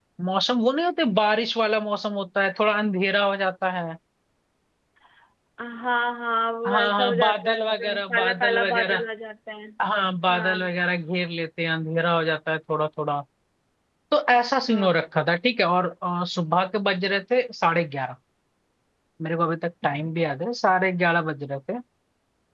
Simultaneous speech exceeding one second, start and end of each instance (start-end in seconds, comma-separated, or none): 6.7-9.0